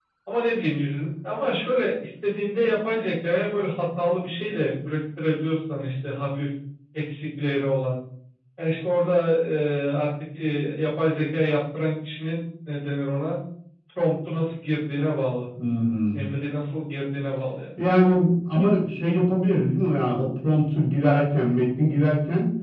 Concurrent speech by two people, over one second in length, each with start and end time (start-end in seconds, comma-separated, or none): none